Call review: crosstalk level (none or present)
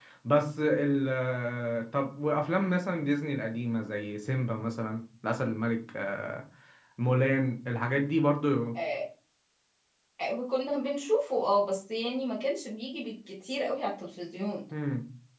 none